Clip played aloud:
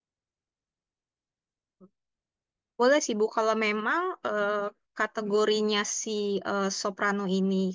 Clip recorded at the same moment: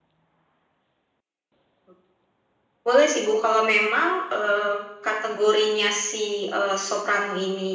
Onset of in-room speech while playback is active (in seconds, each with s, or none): none